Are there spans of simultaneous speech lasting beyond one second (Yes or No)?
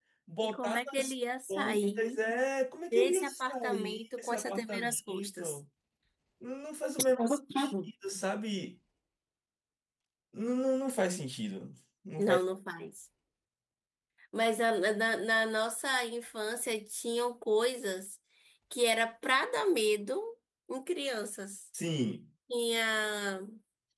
Yes